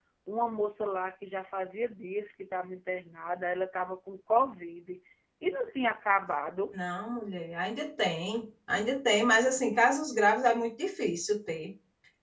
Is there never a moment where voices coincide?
Yes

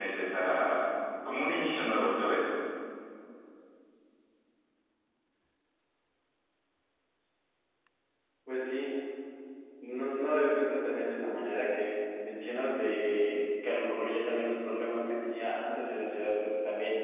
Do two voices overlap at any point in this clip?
No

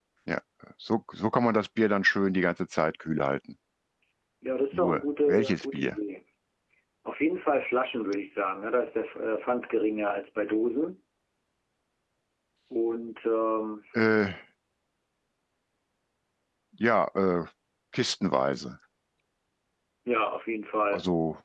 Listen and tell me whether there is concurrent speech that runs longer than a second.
Yes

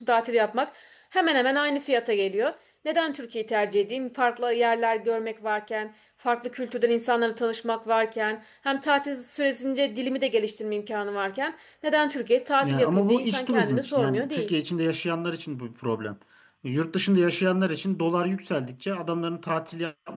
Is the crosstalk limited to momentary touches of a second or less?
No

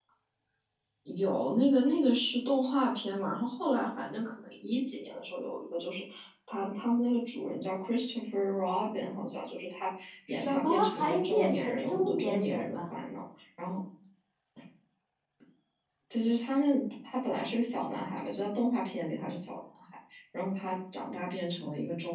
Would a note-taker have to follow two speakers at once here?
Yes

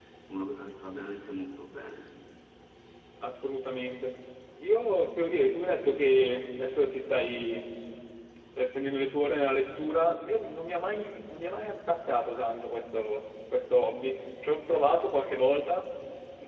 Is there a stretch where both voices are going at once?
No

